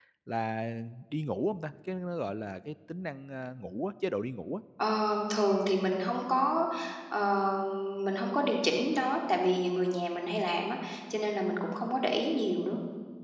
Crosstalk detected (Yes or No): No